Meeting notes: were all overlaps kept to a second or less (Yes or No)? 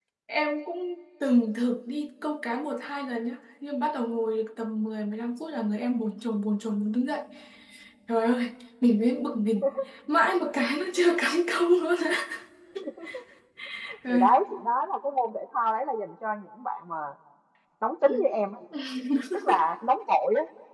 Yes